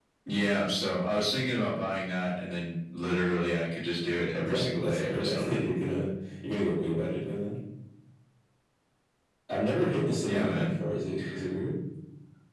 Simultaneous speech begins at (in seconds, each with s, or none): 4.4 s